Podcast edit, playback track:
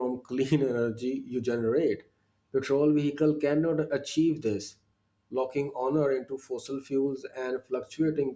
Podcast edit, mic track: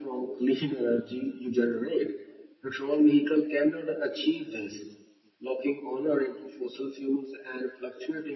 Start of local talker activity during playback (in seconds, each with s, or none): none